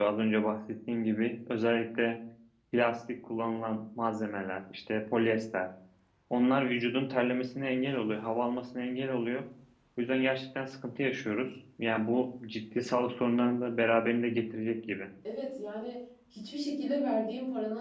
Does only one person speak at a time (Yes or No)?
Yes